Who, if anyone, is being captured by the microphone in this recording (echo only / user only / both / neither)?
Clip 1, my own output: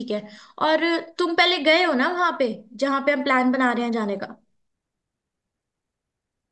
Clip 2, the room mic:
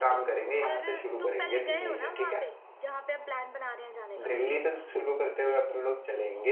both